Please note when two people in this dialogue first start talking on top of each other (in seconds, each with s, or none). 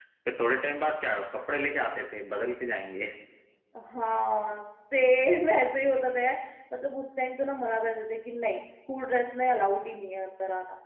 none